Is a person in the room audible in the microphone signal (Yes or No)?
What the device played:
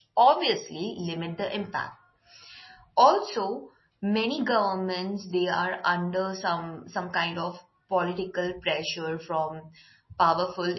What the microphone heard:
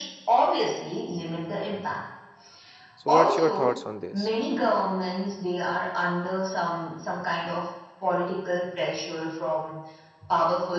Yes